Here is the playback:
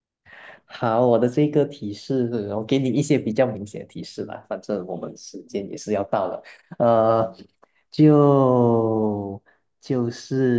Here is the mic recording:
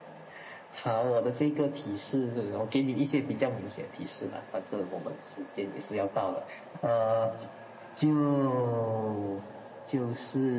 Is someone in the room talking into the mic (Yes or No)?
No